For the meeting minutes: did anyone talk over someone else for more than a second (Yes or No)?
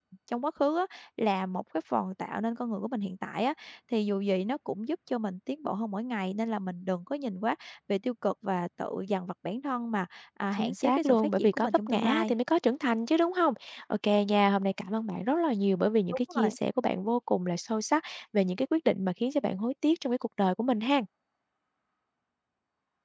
Yes